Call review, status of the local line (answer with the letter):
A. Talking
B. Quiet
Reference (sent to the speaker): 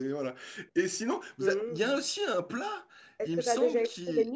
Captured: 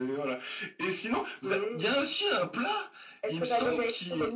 B